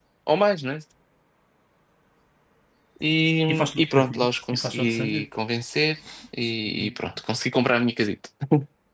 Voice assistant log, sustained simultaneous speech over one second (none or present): present